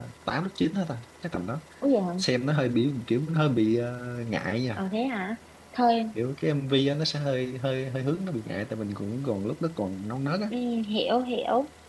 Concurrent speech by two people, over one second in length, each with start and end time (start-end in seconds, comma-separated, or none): none